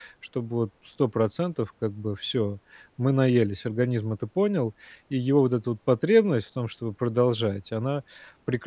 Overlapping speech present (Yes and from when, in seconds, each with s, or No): No